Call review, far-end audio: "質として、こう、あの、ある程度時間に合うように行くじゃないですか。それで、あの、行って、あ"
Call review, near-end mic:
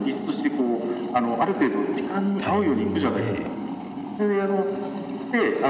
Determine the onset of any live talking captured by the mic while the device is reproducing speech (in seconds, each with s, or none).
2.4 s